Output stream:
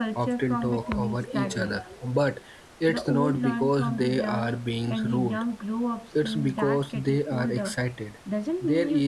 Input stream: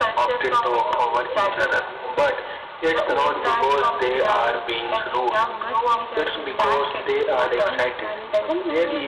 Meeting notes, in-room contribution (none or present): present